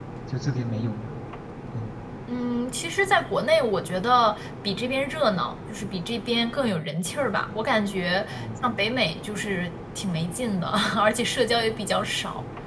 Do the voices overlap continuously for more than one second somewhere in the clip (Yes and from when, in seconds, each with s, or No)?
No